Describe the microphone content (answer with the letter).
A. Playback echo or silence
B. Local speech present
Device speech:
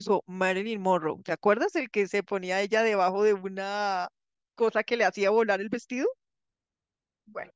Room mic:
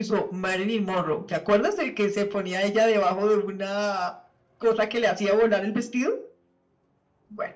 A